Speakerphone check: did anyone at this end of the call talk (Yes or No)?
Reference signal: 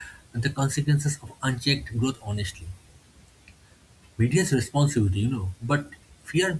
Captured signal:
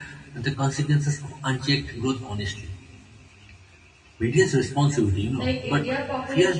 Yes